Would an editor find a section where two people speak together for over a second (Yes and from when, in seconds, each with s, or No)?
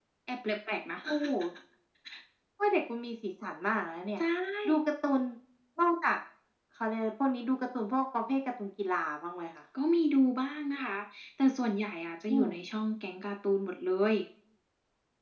No